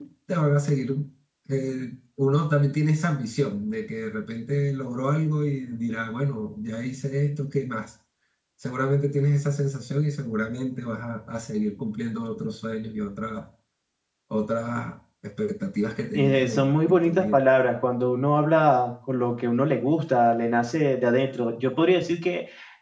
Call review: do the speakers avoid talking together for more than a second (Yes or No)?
No